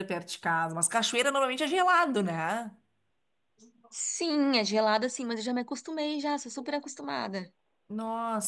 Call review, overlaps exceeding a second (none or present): none